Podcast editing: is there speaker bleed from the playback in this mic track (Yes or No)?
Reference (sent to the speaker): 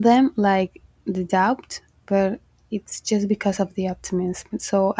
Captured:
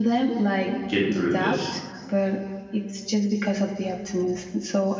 Yes